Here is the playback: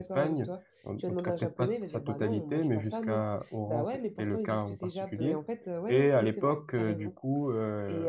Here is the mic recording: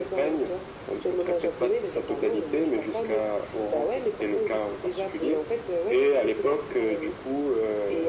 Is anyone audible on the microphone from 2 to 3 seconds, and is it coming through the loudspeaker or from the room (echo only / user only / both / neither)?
echo only